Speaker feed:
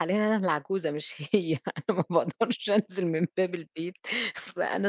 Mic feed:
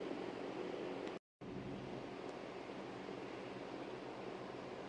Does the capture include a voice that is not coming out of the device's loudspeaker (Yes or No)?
No